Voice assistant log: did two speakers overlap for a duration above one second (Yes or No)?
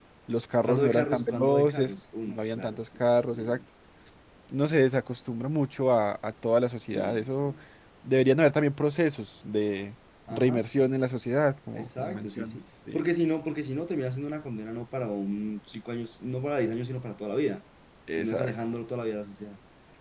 Yes